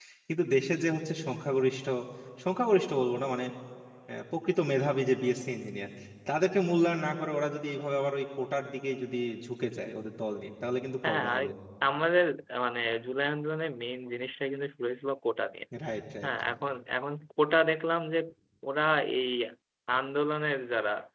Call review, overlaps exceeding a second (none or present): none